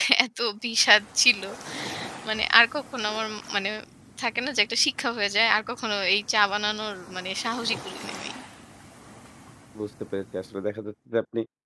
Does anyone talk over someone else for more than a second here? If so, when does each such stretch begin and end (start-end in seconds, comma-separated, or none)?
none